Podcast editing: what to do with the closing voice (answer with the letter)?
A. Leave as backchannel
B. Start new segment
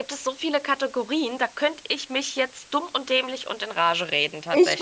B